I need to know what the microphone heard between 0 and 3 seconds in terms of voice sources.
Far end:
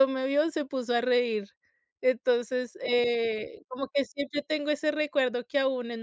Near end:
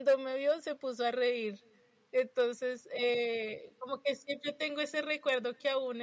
echo only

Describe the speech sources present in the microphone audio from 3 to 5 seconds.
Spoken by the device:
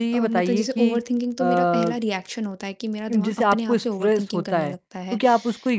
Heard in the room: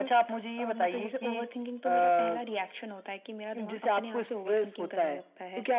echo only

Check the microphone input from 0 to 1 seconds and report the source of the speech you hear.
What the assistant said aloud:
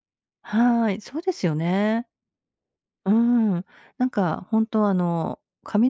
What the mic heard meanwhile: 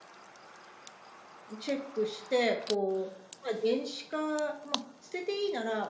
neither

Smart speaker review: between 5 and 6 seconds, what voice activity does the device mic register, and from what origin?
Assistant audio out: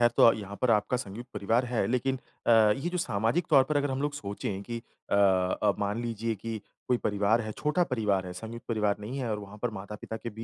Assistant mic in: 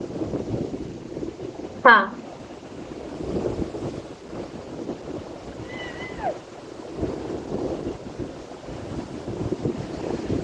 neither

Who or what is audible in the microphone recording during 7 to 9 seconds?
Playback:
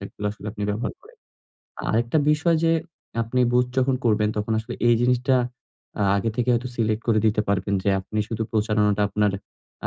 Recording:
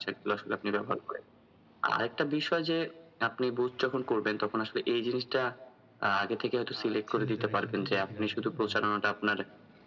both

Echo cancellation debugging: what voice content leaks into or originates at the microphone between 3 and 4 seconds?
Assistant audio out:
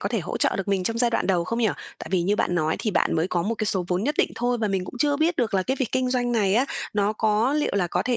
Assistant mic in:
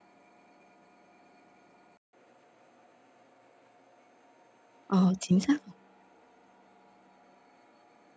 neither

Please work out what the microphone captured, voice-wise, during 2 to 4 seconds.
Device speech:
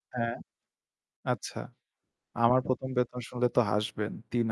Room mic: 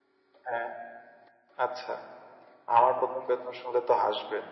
echo only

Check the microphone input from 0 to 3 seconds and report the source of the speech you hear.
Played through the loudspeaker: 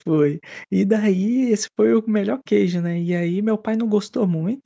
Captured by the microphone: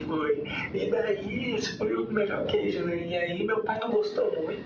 echo only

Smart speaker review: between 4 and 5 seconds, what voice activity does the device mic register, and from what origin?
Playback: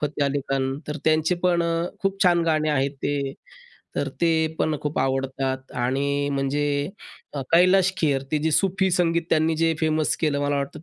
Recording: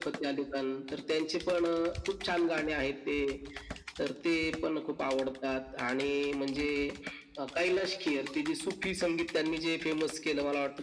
echo only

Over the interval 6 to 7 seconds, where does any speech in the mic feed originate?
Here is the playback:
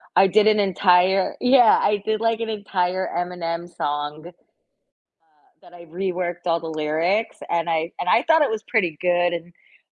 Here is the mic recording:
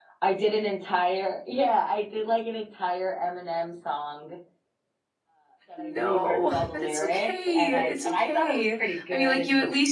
both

